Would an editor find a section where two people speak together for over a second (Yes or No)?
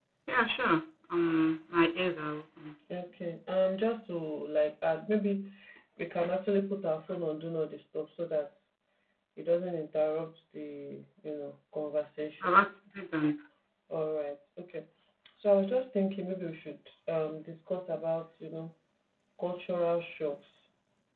No